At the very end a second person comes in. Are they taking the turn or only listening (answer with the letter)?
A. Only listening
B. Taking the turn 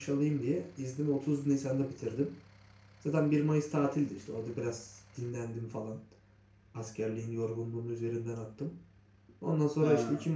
A